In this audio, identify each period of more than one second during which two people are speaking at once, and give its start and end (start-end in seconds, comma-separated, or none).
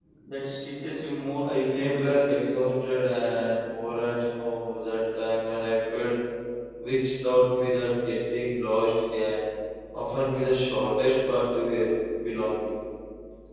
1.4-2.6